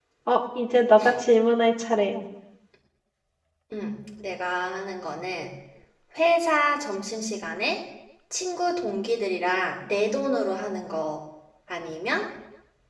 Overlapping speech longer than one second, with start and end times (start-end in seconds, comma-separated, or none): none